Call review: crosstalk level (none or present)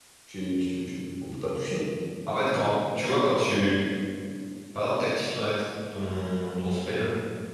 none